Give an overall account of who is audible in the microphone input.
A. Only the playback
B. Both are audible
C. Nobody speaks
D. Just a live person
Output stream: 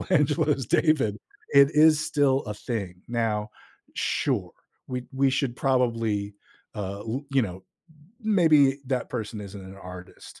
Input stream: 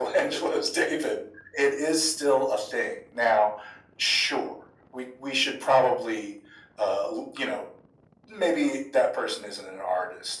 A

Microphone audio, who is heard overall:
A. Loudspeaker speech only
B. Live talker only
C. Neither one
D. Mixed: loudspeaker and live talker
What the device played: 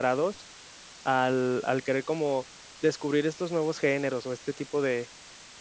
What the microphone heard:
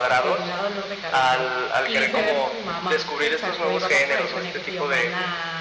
D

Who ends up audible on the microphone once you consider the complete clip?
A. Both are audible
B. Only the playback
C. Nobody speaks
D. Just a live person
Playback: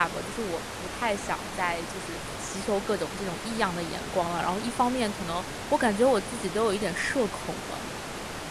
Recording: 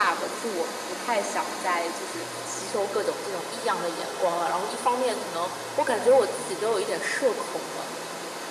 B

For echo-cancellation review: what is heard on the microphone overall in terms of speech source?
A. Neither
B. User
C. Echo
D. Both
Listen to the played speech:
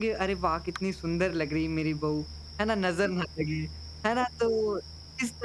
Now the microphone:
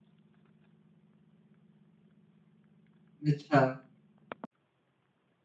B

